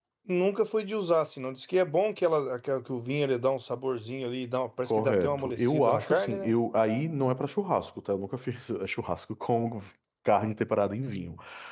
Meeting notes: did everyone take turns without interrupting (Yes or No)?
No